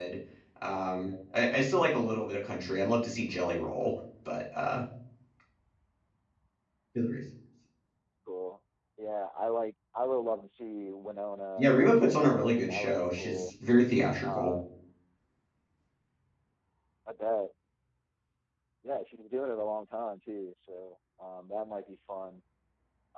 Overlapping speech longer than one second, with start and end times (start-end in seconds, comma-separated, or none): 11.6-13.5